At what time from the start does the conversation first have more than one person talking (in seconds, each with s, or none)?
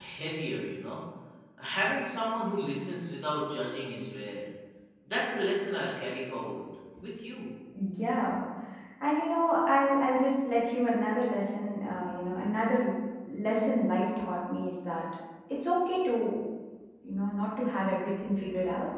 none